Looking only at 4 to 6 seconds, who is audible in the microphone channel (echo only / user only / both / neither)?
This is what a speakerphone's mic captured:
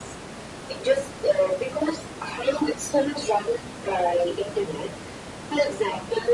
echo only